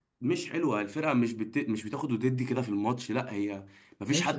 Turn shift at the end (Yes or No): Yes